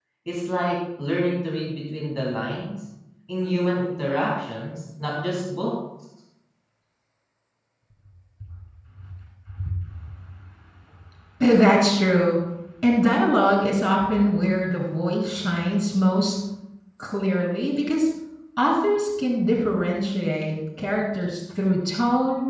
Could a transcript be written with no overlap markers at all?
Yes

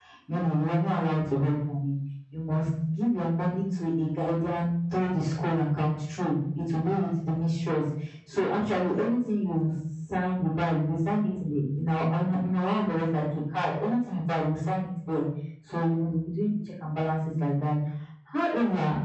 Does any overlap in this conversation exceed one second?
No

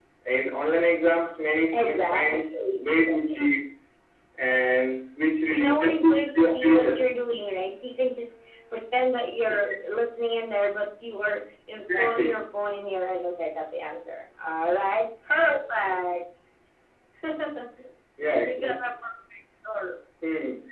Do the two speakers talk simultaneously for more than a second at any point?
Yes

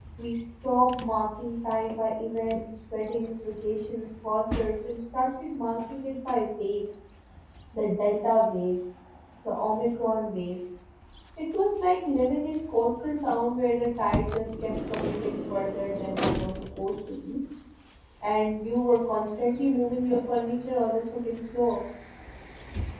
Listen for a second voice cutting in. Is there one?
No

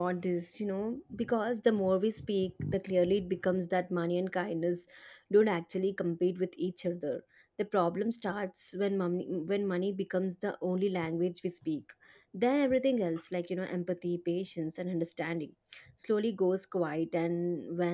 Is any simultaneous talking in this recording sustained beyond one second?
No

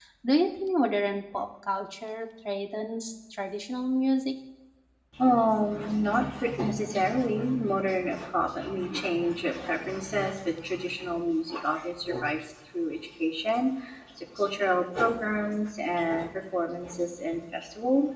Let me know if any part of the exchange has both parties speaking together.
No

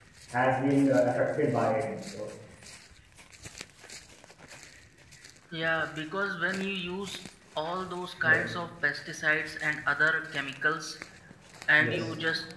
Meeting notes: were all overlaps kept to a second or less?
Yes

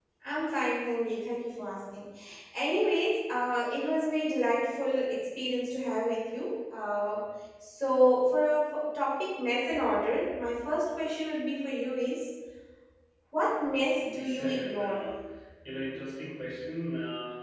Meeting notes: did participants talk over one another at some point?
Yes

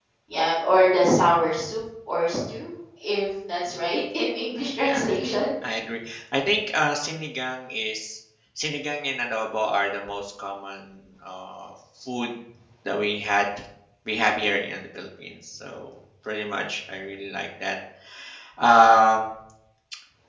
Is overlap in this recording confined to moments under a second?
Yes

